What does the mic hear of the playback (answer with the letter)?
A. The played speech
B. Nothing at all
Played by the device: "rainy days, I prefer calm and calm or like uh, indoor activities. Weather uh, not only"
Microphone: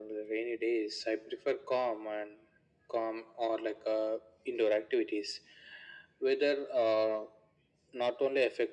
A